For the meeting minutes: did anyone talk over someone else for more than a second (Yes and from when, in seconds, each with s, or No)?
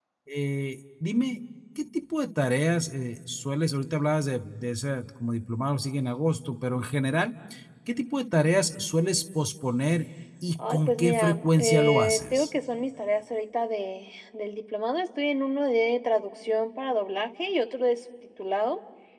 Yes, from 10.6 s